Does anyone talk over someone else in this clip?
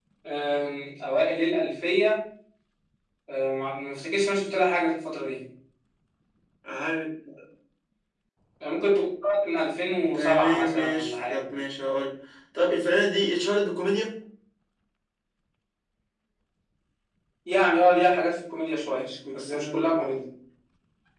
Yes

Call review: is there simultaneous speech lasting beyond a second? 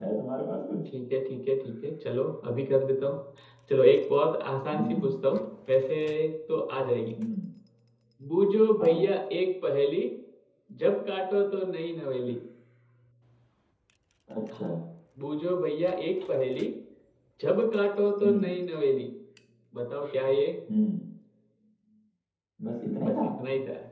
No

